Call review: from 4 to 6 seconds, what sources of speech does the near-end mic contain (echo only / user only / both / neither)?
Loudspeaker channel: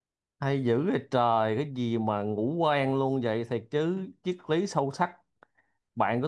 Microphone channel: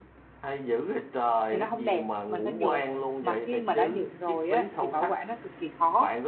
both